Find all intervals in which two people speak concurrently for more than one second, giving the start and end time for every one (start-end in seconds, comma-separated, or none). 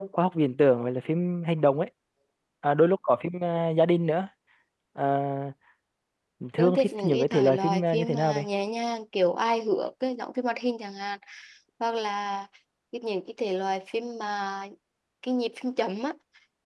6.6-8.5